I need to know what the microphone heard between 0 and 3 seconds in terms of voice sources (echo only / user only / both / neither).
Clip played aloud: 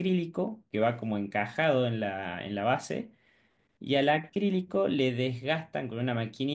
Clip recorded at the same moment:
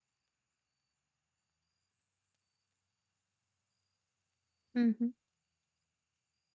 neither